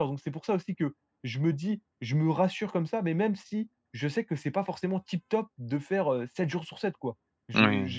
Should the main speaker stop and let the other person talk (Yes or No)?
No